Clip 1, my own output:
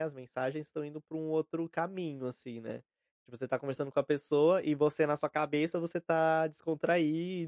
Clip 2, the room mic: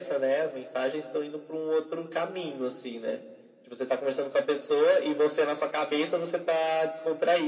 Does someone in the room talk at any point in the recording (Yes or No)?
No